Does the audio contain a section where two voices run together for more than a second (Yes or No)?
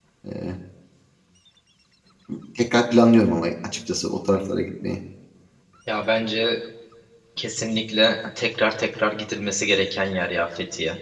No